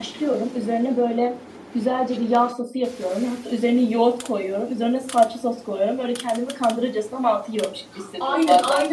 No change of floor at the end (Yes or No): No